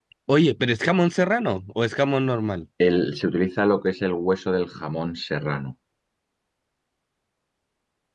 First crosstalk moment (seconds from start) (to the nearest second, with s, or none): none